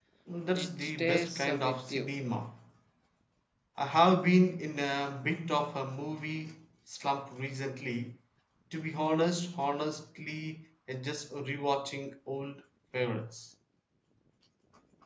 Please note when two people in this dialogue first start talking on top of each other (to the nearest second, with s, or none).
1 s